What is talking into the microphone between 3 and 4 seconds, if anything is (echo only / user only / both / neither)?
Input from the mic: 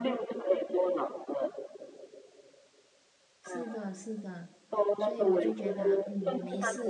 both